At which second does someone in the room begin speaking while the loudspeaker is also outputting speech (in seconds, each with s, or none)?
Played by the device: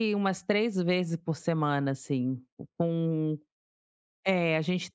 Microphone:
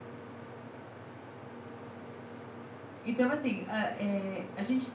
3.0 s